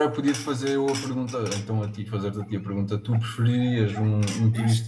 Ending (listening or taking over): listening